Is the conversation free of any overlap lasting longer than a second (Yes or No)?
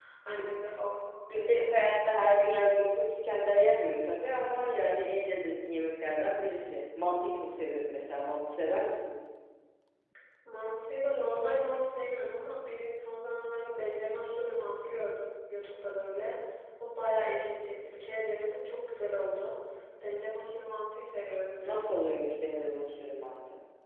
Yes